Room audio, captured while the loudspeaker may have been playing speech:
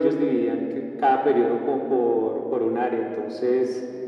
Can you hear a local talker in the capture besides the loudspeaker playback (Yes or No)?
No